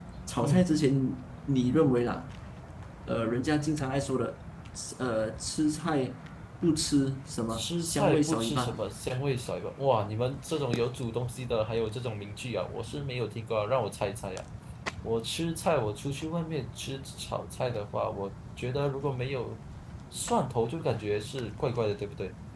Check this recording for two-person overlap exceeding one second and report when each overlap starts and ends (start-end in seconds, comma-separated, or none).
7.5-8.8